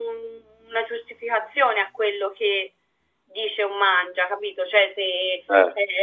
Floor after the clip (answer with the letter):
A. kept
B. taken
A